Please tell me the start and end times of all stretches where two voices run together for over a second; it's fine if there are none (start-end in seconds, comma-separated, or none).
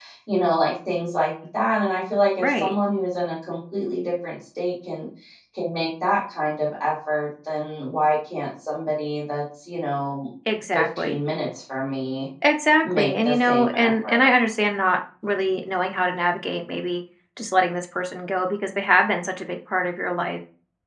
12.8-14.3